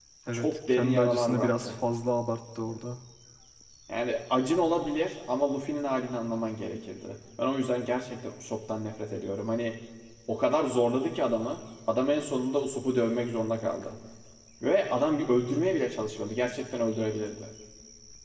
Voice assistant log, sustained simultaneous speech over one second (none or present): present